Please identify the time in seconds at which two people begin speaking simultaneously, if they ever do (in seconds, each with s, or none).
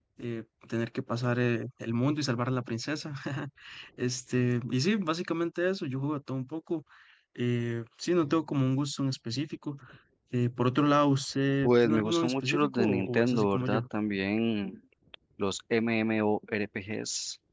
11.6 s